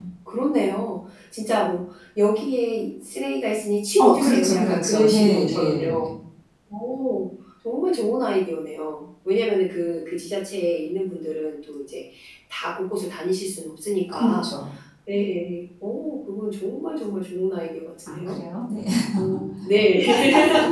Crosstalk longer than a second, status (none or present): present